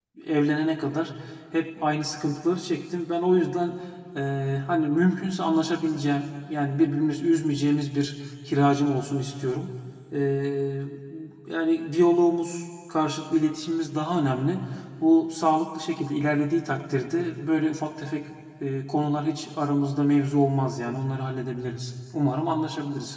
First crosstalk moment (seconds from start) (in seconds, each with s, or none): none